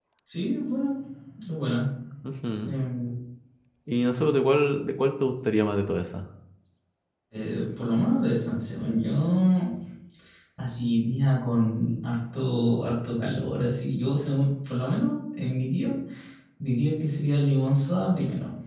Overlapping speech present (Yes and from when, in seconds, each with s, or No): No